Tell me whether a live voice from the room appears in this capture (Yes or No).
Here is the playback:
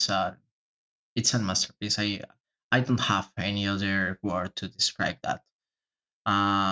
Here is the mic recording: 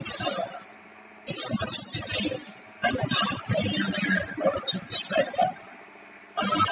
No